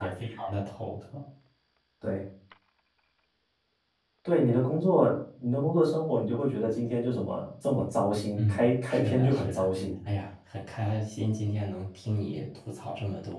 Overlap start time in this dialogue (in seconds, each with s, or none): 8.4 s